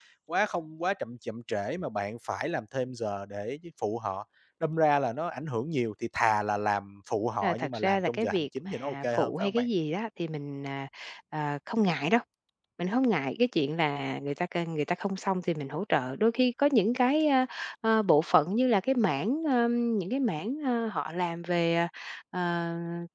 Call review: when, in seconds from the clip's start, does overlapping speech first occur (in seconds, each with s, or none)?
7.4 s